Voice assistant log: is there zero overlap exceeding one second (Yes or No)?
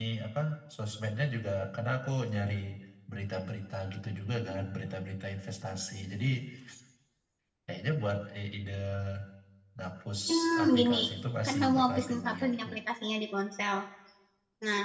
No